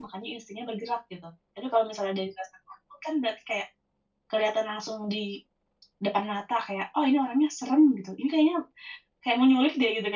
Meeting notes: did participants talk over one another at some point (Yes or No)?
No